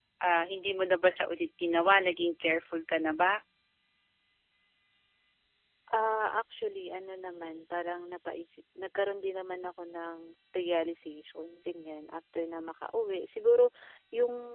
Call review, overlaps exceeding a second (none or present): none